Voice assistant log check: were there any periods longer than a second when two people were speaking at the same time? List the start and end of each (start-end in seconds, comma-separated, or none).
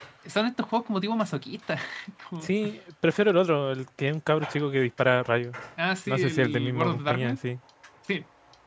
6.1-7.4